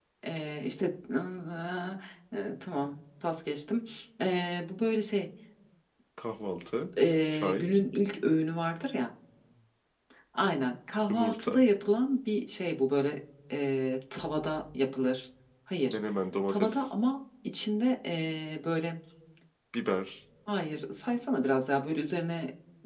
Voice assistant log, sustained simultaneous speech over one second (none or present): none